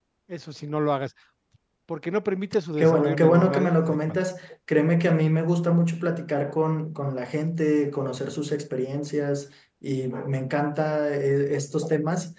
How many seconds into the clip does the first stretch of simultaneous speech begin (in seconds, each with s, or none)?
2.8 s